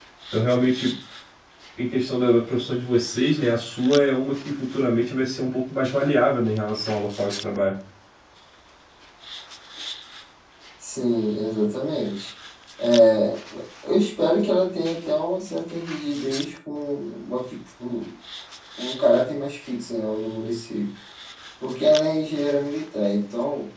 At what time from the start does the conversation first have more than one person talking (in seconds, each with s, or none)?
none